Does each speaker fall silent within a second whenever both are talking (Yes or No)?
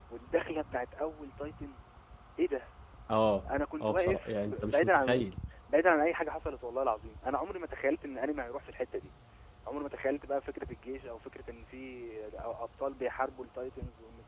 No